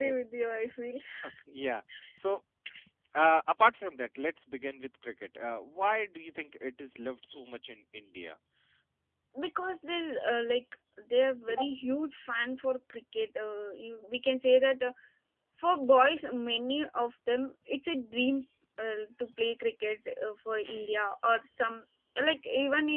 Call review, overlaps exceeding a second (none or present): none